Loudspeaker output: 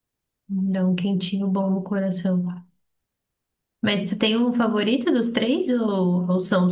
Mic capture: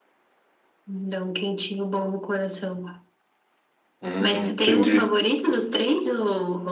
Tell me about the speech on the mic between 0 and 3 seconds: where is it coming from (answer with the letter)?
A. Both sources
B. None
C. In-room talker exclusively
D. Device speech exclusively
D